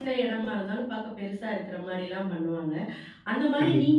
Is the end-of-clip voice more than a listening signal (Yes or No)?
No